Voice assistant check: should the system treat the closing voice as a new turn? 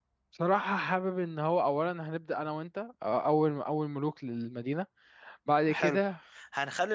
Yes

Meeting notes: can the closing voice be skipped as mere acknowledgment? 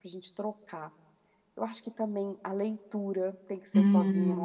No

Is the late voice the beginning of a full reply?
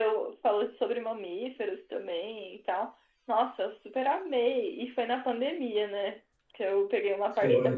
Yes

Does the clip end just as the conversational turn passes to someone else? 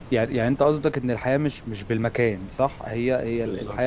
No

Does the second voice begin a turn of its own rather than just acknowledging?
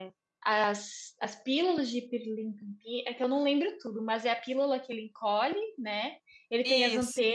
No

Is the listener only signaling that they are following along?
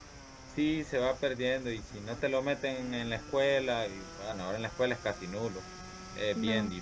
Yes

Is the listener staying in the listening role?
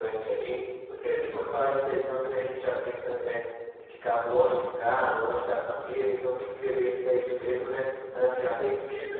Yes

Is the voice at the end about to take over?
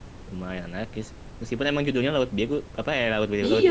Yes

